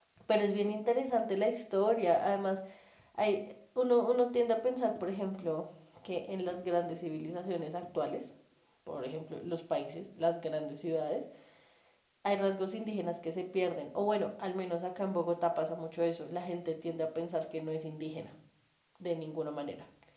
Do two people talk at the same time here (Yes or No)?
No